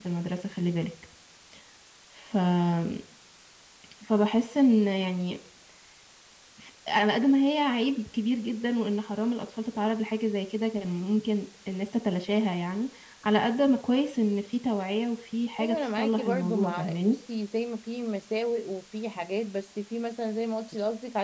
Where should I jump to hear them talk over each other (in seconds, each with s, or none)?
15.6 s